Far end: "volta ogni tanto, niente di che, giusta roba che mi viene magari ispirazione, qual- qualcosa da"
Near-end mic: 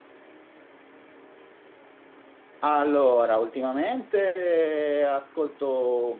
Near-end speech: present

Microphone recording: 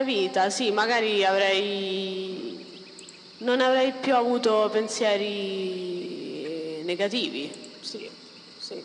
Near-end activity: none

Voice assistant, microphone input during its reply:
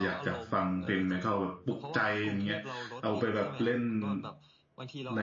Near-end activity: present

